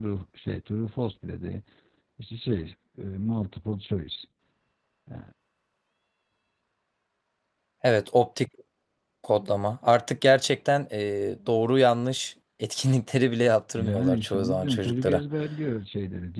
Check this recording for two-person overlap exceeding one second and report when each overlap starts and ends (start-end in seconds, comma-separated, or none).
13.8-15.2